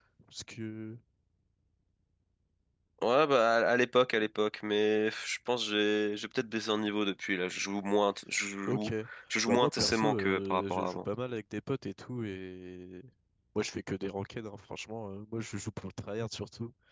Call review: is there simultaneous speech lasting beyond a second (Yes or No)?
Yes